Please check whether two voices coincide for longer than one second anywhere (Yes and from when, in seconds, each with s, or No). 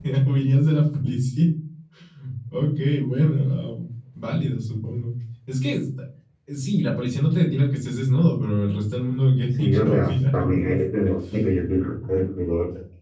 Yes, from 9.5 s